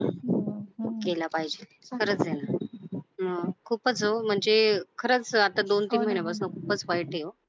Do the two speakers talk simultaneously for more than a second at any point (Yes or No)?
No